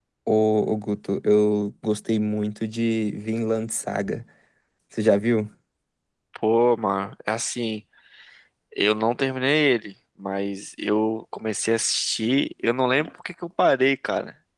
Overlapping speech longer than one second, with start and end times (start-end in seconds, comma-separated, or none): none